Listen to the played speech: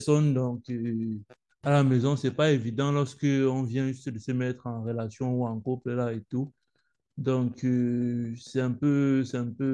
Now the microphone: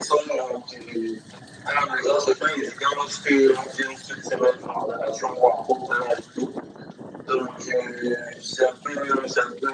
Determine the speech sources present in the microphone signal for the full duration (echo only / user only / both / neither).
echo only